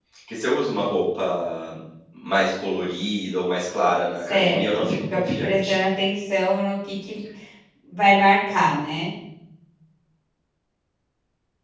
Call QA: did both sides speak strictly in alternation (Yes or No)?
No